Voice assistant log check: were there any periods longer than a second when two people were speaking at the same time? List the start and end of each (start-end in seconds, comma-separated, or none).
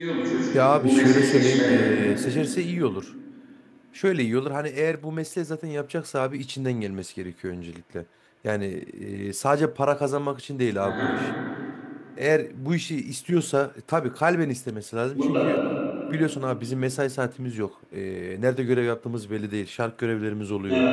0.6-1.9